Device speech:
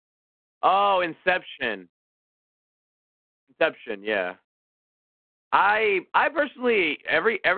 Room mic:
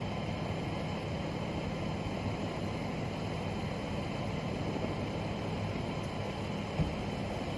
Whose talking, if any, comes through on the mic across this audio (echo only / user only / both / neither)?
neither